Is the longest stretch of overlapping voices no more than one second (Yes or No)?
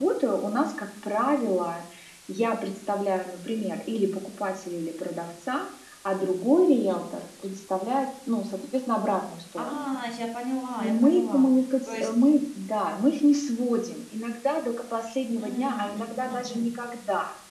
No